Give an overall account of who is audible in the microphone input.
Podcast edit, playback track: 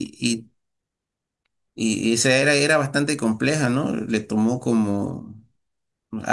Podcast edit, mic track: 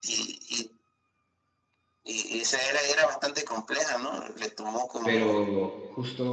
both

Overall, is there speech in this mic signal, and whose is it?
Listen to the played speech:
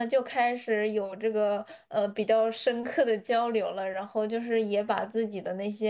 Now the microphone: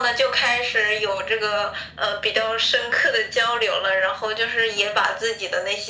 echo only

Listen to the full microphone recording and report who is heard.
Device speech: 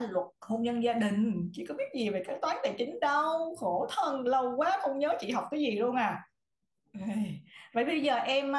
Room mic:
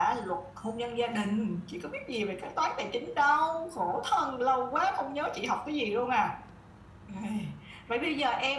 echo only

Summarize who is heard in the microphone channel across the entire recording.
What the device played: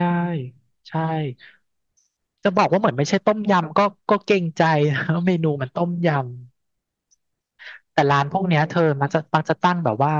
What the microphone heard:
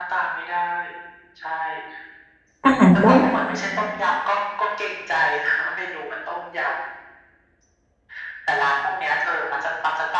both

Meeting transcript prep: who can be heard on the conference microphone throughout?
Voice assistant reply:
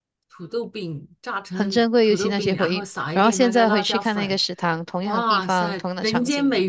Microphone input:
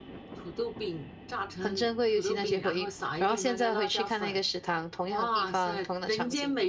echo only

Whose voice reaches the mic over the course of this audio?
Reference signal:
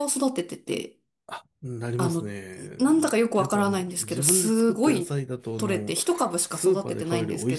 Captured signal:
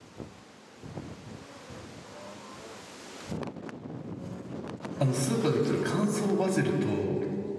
user only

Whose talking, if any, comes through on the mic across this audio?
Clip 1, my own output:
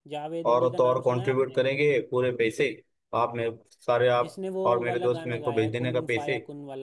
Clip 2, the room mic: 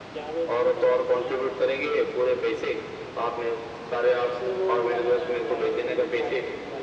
echo only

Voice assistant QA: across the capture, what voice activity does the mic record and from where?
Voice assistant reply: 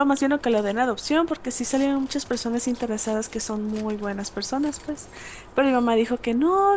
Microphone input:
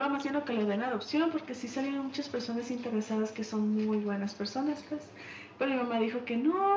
echo only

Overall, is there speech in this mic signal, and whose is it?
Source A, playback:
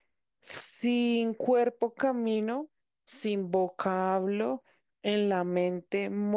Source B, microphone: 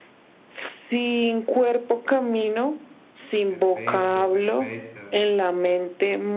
both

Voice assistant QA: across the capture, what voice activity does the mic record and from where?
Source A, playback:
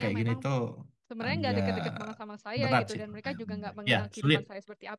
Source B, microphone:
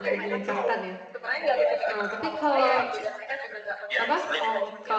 both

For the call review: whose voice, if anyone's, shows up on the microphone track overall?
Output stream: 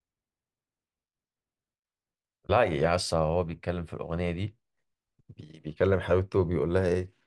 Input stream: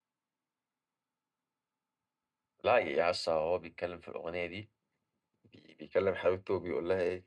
echo only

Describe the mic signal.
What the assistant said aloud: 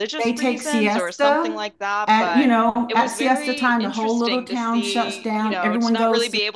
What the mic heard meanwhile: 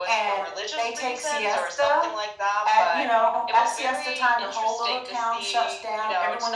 echo only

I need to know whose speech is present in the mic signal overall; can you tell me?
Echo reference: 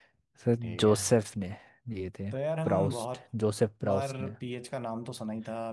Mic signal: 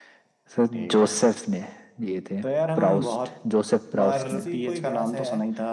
both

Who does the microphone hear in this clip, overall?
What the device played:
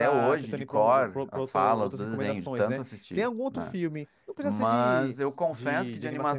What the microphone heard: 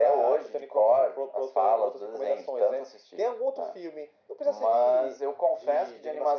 echo only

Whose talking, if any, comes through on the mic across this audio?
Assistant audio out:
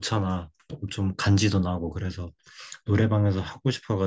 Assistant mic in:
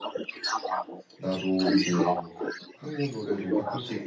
both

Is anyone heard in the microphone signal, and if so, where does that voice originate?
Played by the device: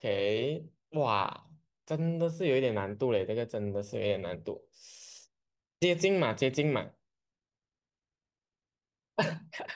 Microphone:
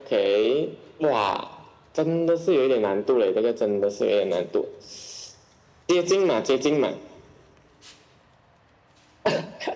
echo only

